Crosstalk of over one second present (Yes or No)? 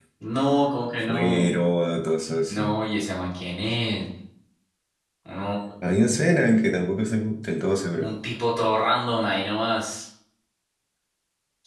No